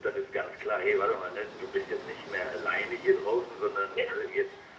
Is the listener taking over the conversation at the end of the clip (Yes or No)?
No